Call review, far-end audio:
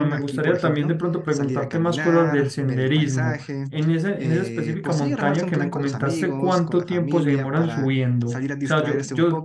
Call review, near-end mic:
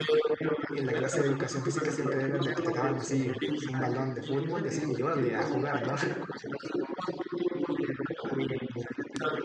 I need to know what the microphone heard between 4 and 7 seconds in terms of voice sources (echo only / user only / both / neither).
both